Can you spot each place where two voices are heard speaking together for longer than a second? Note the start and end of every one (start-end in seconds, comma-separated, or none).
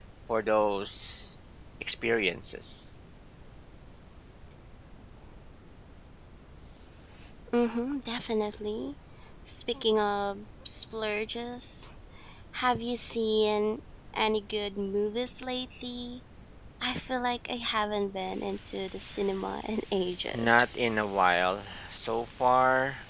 none